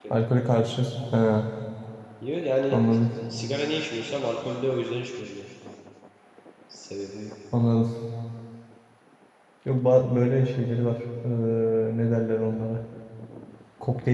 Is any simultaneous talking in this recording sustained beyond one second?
No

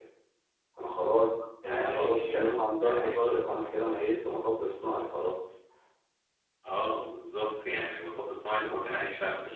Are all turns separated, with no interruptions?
No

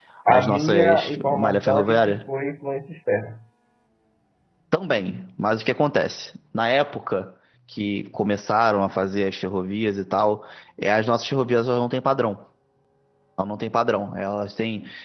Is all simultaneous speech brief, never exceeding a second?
No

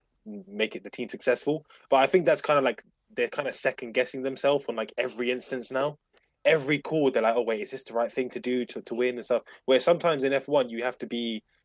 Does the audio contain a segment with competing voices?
No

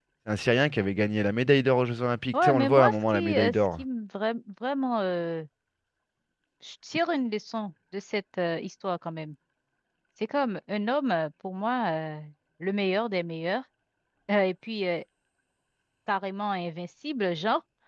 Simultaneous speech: Yes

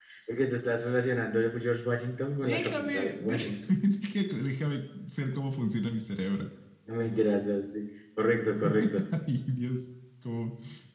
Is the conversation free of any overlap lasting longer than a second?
No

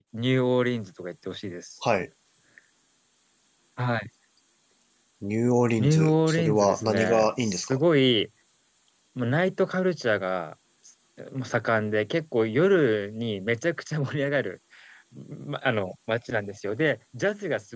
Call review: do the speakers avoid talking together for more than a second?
No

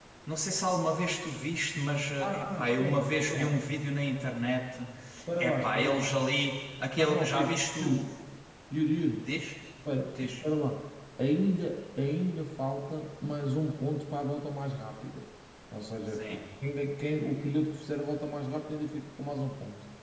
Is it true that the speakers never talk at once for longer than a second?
No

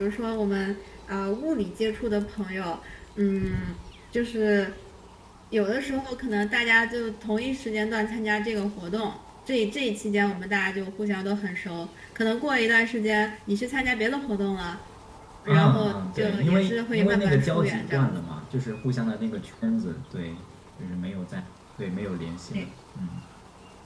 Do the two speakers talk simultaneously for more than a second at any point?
Yes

